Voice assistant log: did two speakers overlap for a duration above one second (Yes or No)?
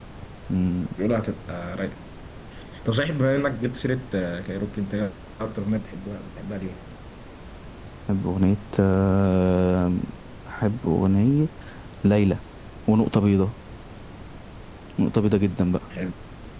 No